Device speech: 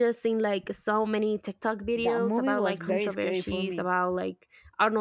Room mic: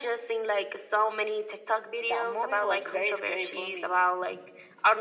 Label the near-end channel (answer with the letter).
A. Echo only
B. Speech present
A